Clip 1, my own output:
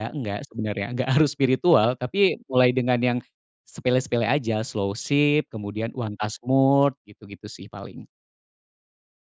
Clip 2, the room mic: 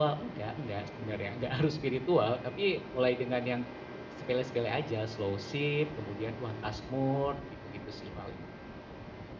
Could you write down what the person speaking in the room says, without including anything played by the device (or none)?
none